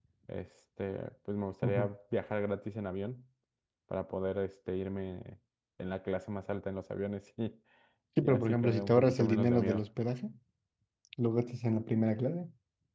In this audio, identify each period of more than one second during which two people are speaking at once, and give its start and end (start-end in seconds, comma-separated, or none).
8.2-9.8